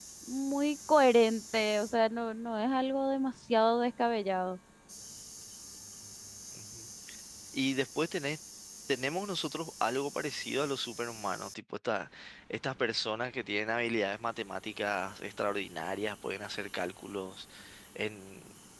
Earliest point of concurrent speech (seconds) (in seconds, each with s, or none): none